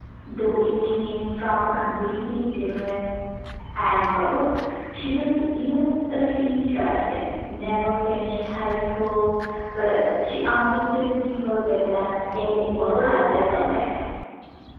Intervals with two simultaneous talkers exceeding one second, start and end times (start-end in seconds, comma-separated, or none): 12.3-13.8